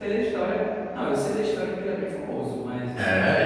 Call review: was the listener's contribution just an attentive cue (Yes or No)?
No